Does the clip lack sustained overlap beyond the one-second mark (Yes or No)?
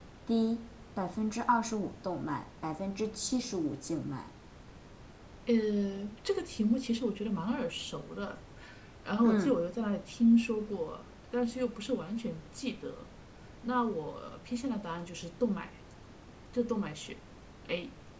Yes